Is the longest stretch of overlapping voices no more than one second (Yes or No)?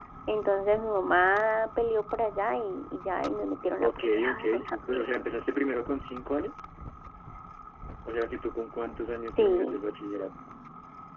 No